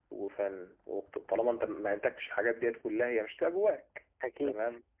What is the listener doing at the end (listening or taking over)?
listening